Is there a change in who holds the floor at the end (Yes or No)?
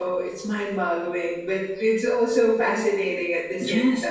Yes